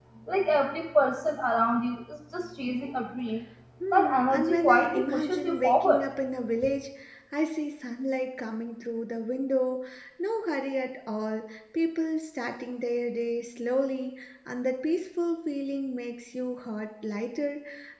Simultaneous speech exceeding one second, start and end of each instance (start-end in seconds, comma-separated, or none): 3.9-6.0